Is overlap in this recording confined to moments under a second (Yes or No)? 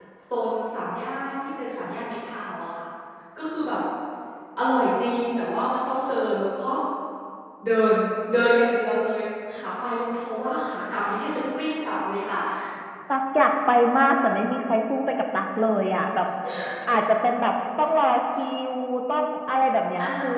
Yes